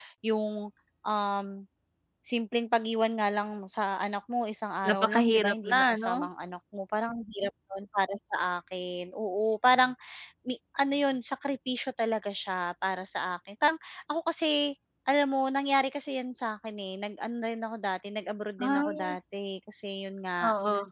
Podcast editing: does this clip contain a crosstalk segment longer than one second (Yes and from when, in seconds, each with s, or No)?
Yes, from 4.8 s